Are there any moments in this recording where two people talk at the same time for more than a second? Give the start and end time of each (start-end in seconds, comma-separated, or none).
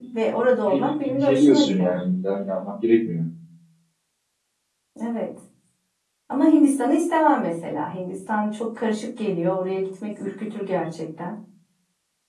0.7-1.9